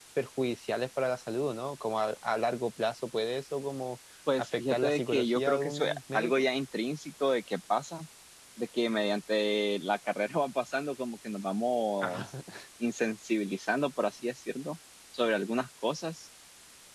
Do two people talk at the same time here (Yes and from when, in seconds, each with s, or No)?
Yes, from 4.6 s